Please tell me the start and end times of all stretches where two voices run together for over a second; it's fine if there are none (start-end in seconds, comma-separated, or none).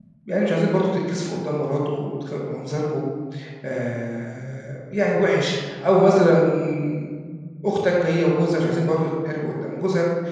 none